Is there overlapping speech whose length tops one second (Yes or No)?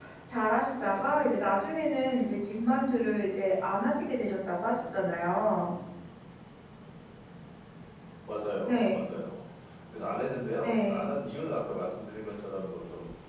No